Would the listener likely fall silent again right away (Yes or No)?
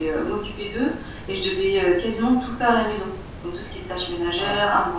Yes